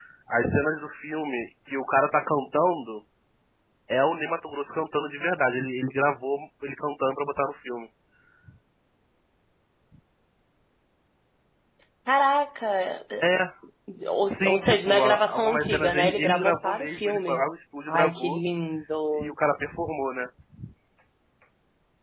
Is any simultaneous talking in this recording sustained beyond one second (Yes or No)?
Yes